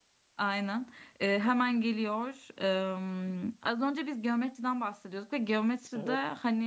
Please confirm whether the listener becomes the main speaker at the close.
No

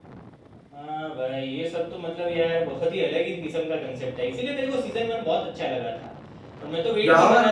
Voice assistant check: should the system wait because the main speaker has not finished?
Yes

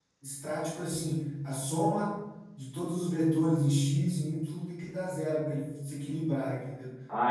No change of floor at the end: No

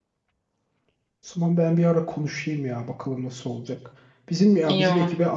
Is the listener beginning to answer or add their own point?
No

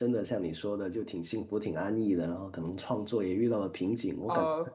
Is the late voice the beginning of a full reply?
Yes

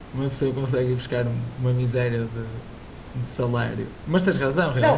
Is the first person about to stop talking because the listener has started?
Yes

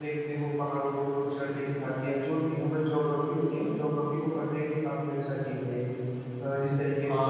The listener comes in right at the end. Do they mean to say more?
Yes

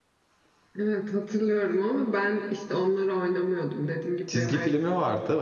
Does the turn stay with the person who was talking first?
No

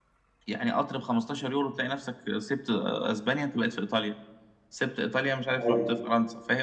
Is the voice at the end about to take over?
No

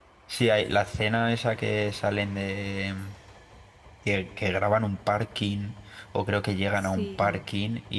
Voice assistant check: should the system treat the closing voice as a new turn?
No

